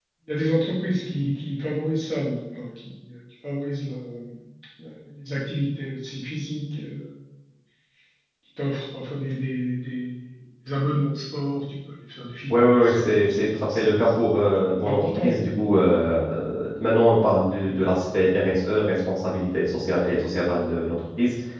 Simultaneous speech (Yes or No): Yes